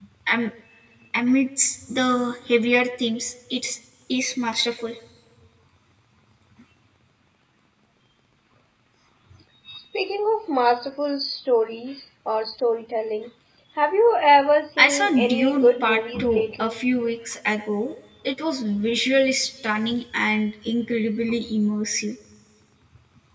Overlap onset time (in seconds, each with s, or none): 14.8 s